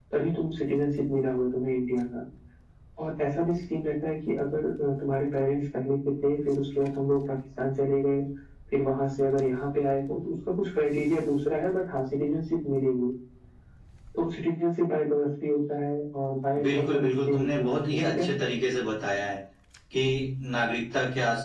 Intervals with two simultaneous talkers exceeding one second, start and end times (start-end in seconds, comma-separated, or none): 16.6-18.3